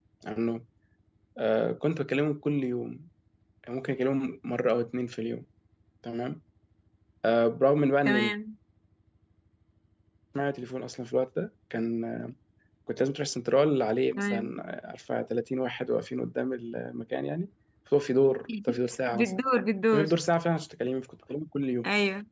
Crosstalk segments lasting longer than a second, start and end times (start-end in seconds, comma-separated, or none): none